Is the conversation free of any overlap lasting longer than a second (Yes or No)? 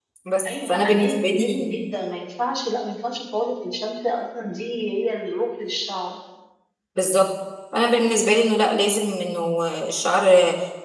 No